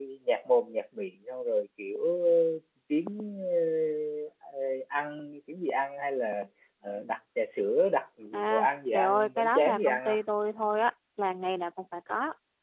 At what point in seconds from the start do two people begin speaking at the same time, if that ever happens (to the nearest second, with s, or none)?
8 s